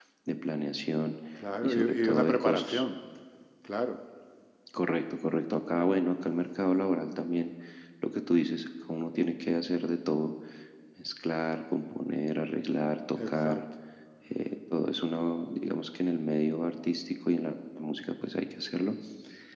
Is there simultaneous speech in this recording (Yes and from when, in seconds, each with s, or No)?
Yes, from 1.6 s